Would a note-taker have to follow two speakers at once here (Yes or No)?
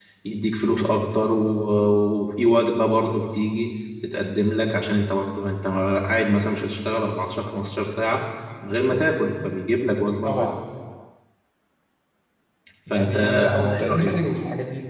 Yes